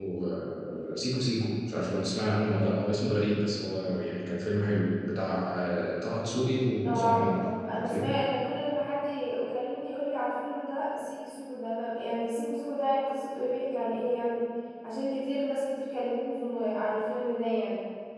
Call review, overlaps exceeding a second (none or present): present